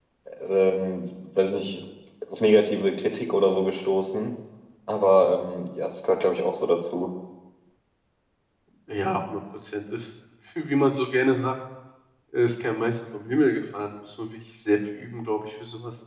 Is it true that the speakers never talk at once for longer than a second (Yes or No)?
Yes